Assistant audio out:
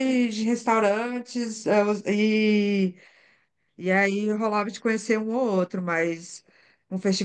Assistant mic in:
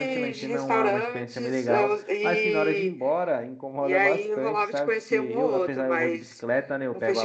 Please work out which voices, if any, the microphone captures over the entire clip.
both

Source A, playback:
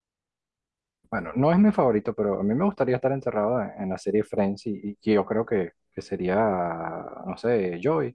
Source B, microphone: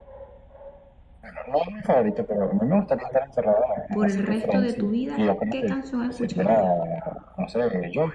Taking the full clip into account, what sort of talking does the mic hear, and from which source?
both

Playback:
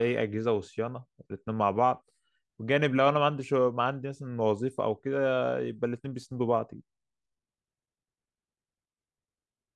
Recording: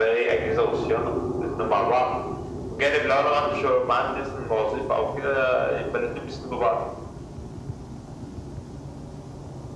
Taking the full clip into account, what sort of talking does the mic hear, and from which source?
echo only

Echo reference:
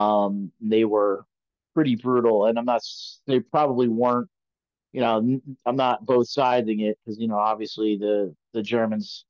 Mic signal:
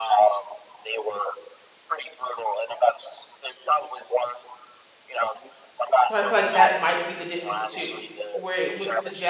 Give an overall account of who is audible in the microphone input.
both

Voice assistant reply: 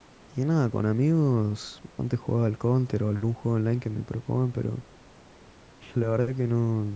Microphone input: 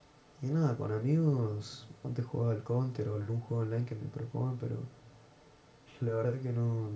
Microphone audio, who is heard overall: echo only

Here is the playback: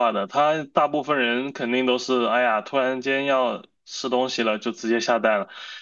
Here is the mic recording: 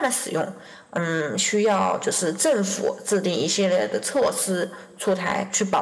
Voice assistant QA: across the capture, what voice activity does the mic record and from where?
user only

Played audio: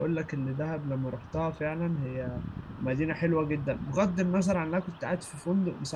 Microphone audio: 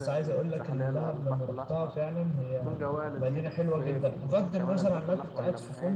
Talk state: both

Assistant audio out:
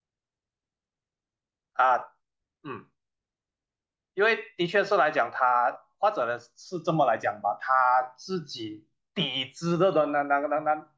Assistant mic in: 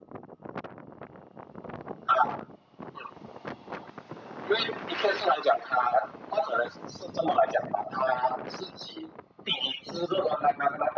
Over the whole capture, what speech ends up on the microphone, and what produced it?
echo only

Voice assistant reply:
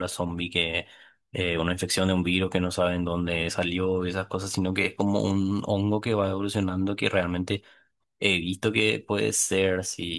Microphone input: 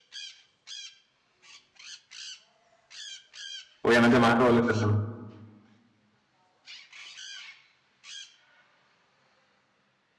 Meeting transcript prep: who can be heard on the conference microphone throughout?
user only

